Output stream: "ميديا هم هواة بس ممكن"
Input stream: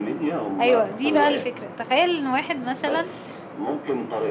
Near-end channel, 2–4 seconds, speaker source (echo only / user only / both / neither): both